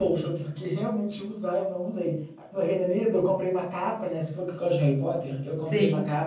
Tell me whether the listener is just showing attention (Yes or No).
Yes